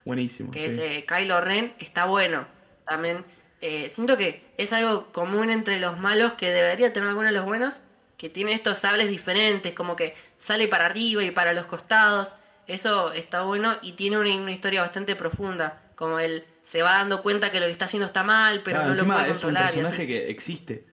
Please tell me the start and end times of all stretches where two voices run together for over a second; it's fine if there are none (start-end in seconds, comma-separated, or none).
18.7-20.0